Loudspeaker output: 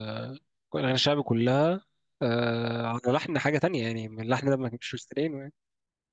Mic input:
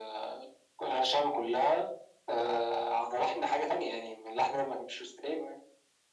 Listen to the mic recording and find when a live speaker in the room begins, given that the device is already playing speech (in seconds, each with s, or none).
none